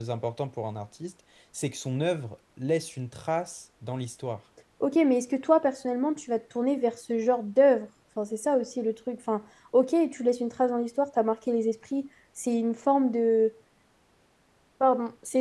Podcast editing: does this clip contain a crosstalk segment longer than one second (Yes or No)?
No